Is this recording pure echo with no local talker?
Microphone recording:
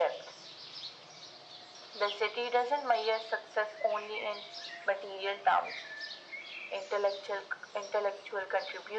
Yes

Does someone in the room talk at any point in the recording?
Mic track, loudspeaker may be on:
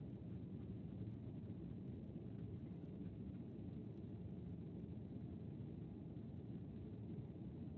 No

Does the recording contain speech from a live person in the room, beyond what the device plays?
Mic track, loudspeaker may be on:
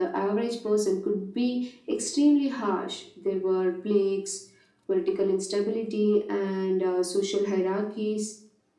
No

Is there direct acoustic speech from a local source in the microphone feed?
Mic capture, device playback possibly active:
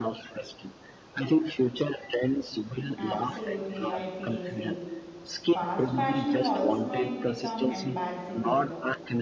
Yes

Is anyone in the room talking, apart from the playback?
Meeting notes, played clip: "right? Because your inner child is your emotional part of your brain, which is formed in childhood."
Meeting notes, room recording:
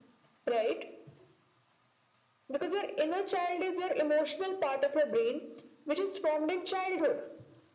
No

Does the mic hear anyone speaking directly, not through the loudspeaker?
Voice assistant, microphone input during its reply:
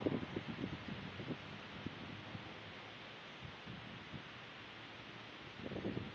No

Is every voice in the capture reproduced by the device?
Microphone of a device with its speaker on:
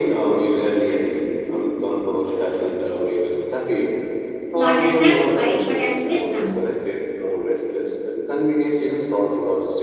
No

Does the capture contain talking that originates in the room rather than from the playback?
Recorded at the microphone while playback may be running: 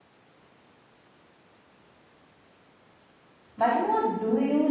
Yes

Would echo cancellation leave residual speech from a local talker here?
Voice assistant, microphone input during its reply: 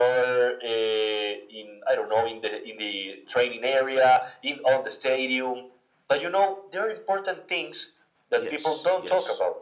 Yes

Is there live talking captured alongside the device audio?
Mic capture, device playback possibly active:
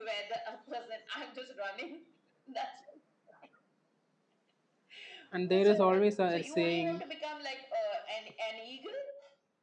Yes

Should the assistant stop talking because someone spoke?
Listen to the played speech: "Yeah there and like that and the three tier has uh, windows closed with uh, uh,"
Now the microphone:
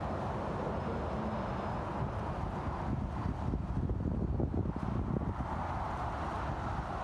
No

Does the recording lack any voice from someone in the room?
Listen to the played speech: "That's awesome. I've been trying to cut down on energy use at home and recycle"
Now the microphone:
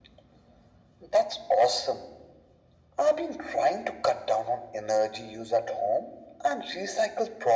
Yes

